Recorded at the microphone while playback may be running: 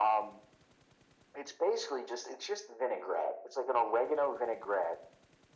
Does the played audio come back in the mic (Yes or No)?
Yes